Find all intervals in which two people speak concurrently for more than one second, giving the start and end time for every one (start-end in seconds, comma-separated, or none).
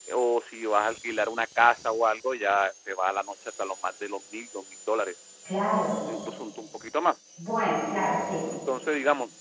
none